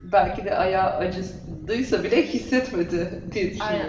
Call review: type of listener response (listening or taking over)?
taking over